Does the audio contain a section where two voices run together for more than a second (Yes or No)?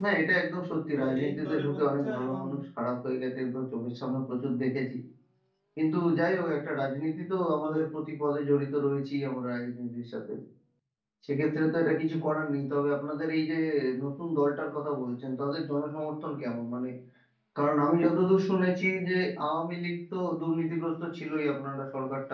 Yes